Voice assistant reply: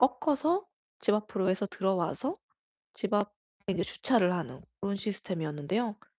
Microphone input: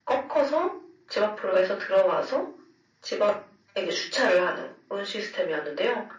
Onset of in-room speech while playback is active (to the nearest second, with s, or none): none